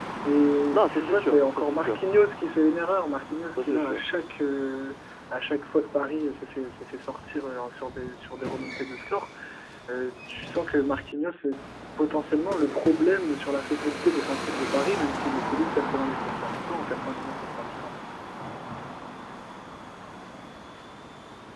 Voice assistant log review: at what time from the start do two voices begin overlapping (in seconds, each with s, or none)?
0.7 s